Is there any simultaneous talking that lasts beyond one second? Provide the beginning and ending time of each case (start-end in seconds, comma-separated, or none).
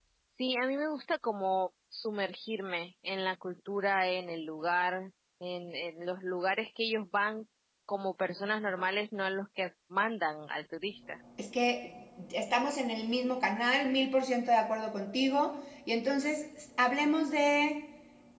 none